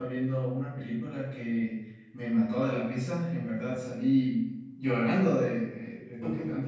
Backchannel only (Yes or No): Yes